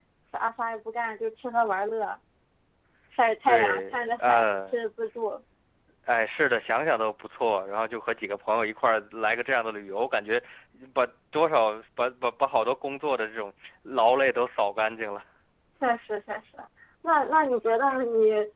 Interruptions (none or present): present